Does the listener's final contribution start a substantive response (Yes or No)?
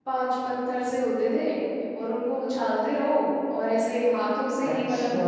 Yes